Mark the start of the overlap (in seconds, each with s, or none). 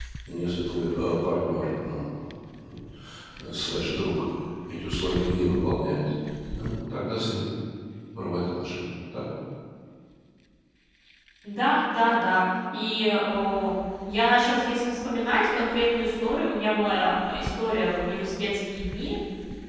none